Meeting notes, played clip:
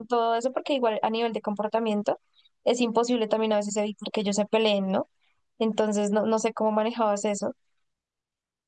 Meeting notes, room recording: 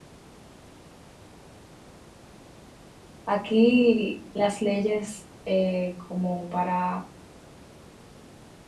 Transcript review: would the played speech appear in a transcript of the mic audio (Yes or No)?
No